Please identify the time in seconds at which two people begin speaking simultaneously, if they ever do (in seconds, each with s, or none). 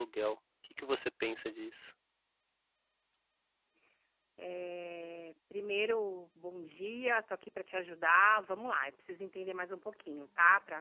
none